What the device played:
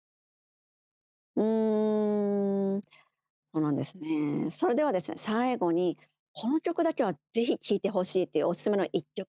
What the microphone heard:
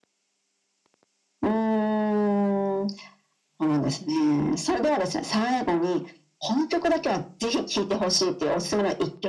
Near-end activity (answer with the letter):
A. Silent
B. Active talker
A